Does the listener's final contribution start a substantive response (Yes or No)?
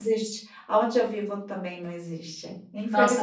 Yes